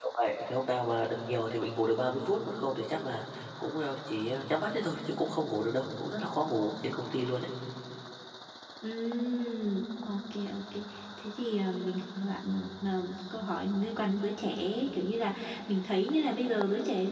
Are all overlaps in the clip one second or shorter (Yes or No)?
Yes